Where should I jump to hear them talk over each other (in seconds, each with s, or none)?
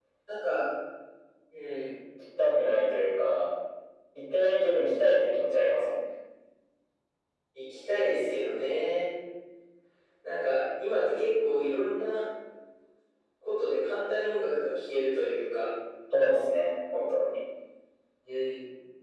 none